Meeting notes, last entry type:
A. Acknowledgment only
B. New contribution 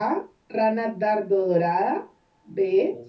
A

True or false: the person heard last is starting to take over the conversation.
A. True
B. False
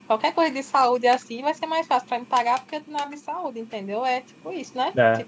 A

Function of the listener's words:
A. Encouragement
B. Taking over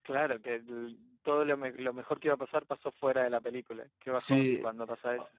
B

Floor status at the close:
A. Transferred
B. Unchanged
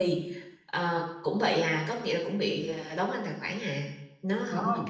A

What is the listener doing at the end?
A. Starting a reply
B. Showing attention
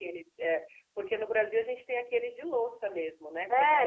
A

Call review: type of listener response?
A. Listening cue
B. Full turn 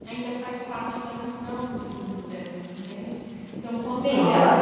B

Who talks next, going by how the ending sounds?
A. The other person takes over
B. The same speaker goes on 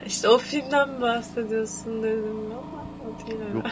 A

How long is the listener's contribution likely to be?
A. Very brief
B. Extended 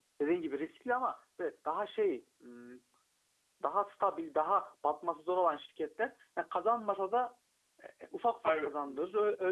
A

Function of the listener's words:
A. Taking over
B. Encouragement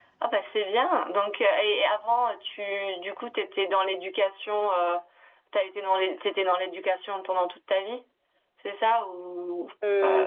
A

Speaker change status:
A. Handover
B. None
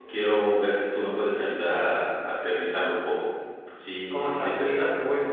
A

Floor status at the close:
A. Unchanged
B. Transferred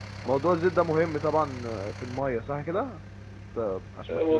B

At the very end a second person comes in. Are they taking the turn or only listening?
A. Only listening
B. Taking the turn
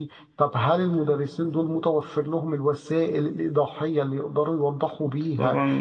B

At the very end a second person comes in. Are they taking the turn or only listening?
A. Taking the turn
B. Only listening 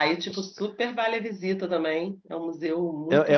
A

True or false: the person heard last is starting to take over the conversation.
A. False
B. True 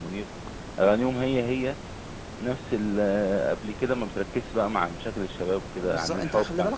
B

